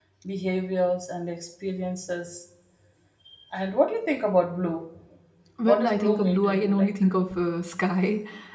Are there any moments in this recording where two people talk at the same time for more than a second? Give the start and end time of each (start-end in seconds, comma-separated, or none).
5.7-6.9